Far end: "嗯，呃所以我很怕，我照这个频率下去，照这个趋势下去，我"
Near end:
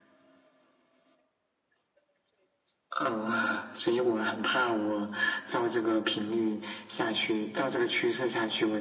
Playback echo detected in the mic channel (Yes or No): Yes